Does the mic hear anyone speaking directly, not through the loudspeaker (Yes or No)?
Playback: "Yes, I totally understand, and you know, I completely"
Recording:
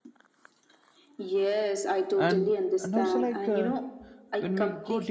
Yes